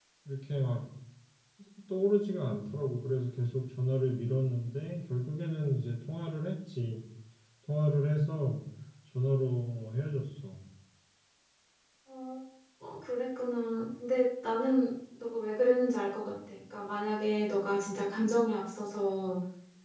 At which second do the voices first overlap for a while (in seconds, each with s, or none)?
none